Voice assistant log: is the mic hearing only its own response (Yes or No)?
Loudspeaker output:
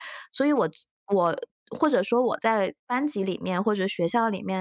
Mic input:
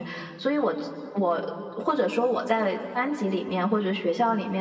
Yes